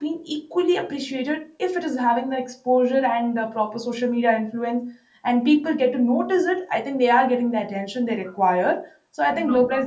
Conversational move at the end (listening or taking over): listening